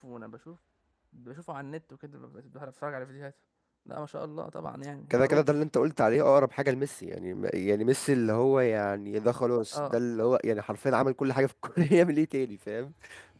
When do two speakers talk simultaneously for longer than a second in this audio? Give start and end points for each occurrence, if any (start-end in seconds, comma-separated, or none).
none